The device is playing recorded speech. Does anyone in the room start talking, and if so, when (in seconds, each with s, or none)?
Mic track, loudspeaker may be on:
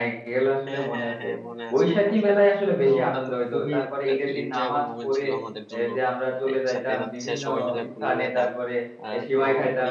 0.7 s